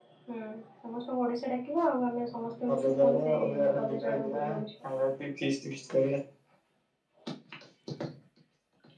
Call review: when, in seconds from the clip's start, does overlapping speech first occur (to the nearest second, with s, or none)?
3 s